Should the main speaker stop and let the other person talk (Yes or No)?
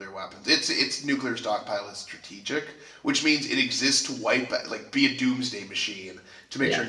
No